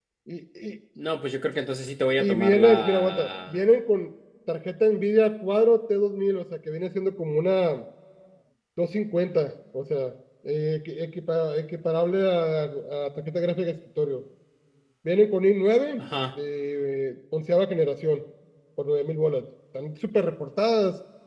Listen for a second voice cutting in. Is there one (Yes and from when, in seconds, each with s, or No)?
Yes, from 2.2 s